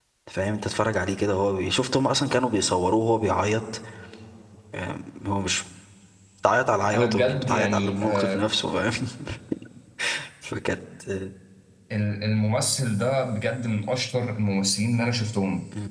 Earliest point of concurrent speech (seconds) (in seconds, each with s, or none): 6.9 s